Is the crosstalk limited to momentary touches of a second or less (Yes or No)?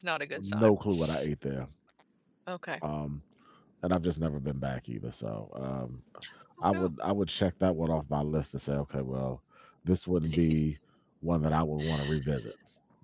Yes